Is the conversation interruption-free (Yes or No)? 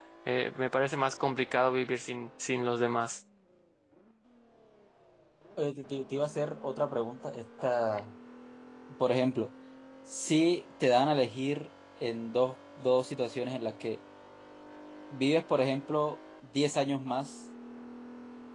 Yes